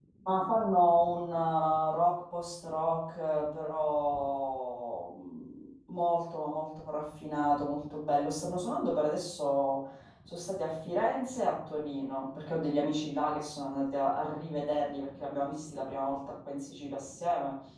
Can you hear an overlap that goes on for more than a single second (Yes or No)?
No